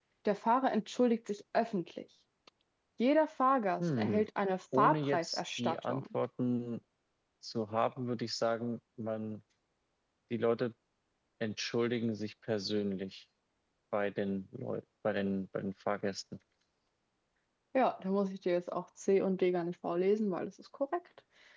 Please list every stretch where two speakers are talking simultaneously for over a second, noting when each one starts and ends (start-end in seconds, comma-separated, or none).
4.8-6.0